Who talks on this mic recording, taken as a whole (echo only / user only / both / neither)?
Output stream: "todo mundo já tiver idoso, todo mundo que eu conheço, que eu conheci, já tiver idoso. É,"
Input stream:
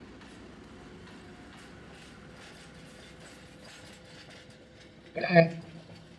user only